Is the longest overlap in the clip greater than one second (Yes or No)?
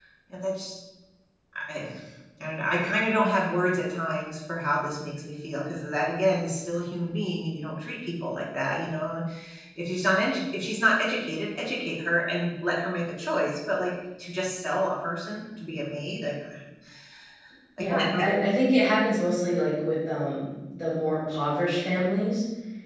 No